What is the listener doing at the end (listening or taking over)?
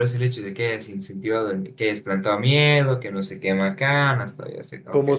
taking over